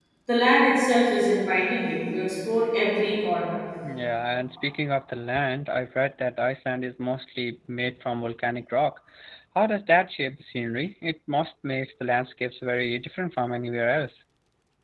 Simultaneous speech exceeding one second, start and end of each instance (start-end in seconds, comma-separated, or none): none